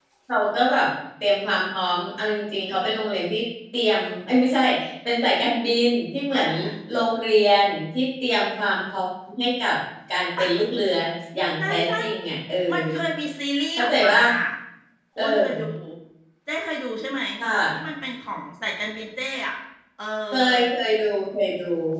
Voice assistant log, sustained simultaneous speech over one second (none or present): none